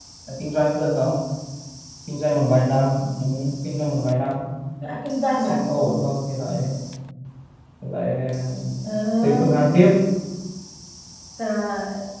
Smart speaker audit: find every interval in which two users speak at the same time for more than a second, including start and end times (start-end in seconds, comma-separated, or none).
none